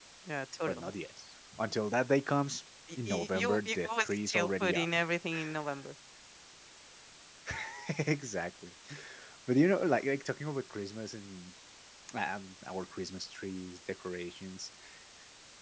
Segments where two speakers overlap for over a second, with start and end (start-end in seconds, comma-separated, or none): 3.1-4.9